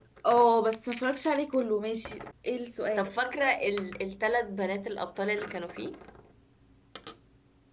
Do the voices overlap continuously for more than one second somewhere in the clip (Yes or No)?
No